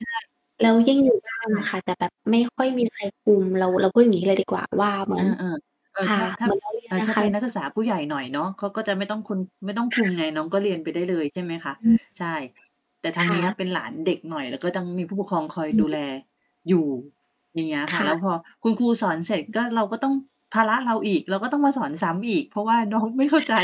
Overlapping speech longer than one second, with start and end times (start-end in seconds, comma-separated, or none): none